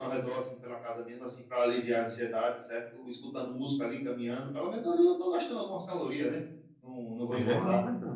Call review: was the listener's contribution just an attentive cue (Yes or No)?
No